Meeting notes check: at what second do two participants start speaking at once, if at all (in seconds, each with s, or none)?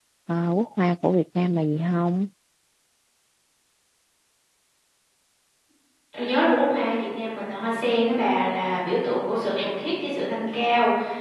none